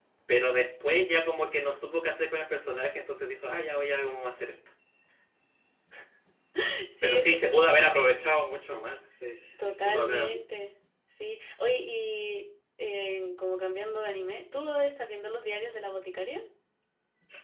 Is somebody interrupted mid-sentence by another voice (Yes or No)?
Yes